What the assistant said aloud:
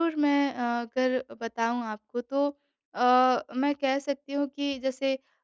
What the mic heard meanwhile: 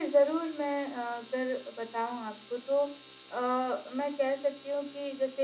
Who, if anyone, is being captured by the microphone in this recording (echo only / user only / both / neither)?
echo only